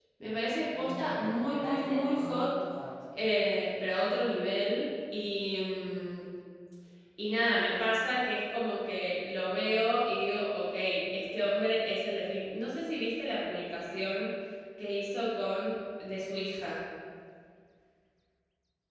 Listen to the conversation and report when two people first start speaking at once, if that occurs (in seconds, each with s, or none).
0.8 s